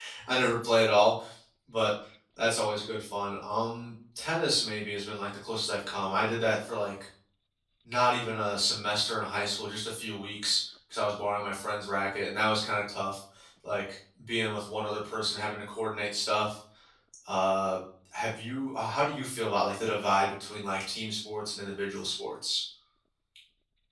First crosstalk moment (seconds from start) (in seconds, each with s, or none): none